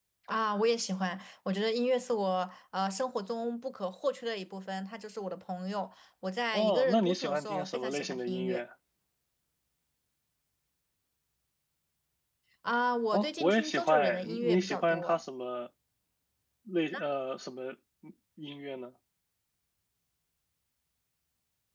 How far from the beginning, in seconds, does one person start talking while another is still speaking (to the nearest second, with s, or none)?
7 s